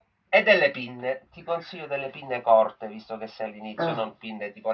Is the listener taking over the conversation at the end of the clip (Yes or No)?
No